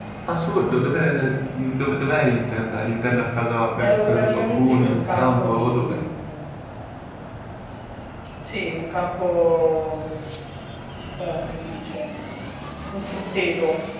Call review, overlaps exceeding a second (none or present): present